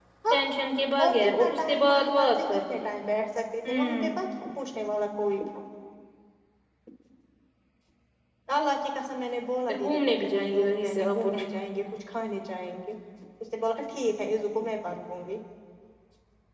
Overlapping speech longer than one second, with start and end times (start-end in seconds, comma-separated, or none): 1.0-2.8, 9.7-11.2